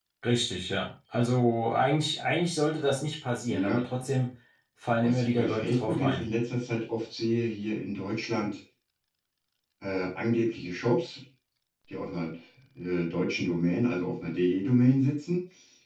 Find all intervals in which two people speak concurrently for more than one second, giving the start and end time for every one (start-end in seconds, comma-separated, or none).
5.0-6.2